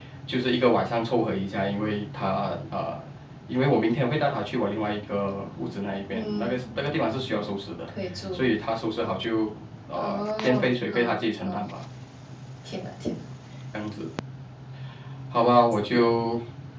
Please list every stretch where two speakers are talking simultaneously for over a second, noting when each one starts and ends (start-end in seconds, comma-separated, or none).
10.0-11.6